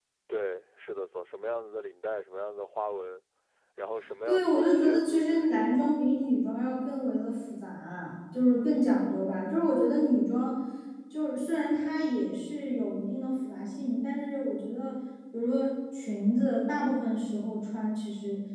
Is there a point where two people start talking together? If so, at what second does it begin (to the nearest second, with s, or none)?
4 s